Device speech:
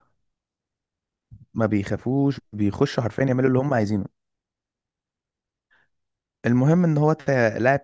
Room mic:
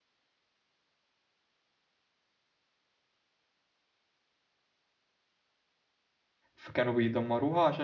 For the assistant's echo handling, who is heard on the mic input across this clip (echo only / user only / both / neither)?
user only